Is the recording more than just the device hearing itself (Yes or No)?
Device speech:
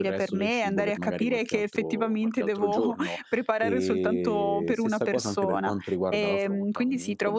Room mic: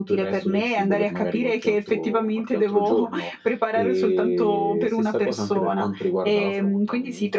No